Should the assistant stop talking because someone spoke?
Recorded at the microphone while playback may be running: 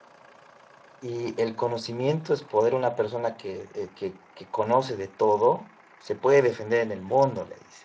Yes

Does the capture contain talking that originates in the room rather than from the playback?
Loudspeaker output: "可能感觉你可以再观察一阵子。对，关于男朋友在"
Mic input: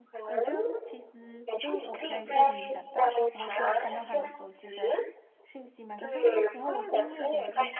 Yes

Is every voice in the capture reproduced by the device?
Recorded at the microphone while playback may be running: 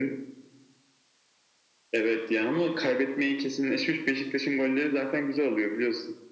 Yes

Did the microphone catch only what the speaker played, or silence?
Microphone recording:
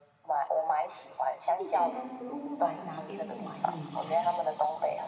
No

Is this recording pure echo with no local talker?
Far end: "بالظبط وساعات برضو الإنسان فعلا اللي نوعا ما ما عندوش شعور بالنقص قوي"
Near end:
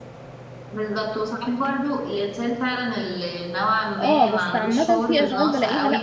No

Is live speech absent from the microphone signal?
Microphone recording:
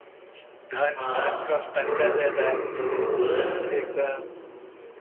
No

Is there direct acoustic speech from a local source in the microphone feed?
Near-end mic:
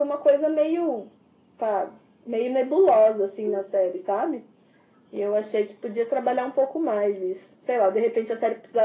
No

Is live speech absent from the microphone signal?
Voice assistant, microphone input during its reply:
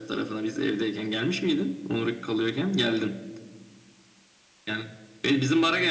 Yes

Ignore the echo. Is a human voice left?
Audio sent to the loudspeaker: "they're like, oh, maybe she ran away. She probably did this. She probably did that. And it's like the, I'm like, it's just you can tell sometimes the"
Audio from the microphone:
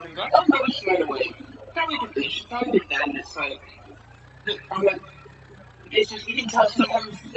No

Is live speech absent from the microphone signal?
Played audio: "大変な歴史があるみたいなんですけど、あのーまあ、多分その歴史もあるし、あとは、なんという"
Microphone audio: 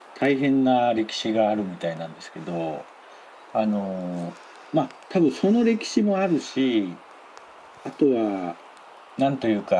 Yes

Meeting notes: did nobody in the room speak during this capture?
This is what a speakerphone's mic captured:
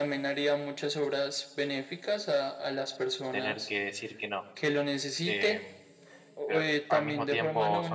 No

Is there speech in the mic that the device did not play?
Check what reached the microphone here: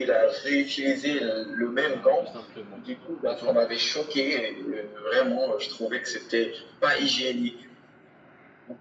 Yes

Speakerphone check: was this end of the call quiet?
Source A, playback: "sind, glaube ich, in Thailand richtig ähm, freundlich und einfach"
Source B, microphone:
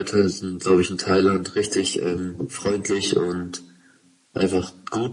Yes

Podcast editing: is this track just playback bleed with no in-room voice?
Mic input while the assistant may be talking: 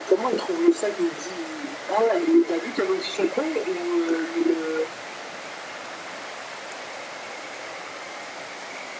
Yes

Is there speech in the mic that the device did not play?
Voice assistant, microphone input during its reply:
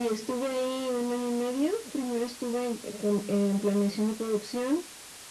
No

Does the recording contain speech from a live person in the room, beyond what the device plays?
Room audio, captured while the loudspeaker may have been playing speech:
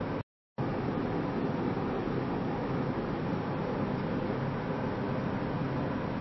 No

